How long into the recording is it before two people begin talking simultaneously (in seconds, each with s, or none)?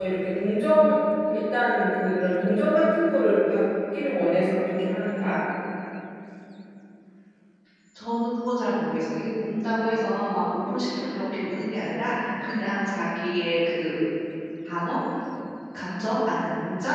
none